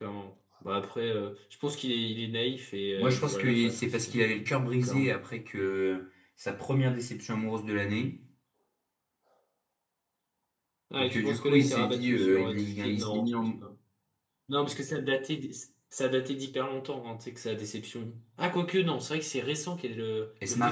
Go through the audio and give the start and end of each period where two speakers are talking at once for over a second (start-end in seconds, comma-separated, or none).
3.0-4.2, 11.0-13.5